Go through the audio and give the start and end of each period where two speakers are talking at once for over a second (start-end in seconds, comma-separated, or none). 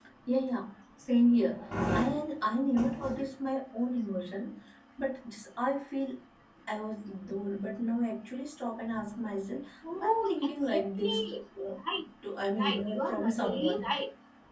10.0-11.4, 12.6-13.9